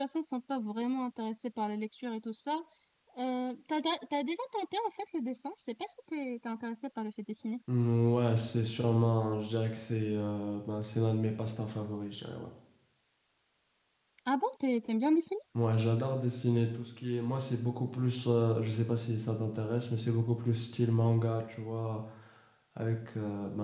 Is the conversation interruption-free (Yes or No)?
Yes